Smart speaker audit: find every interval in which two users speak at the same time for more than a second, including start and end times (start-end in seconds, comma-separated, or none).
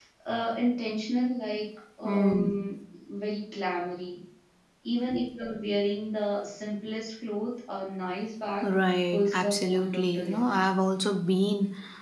9.1-10.6